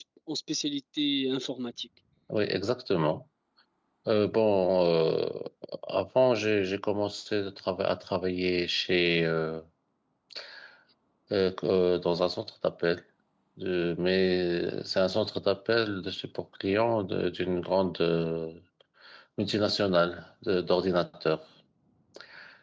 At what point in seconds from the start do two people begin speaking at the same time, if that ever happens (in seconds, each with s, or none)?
none